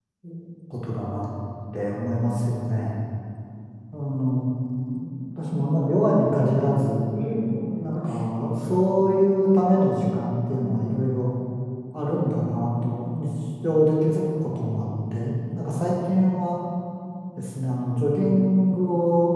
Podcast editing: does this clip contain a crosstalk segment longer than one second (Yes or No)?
No